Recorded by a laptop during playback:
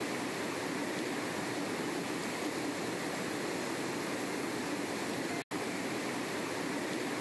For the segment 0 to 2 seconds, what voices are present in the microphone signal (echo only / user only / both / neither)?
neither